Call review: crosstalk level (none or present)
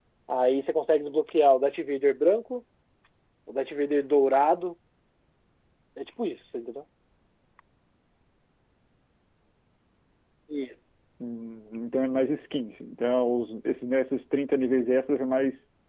none